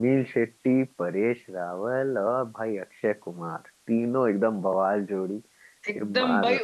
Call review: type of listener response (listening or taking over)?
taking over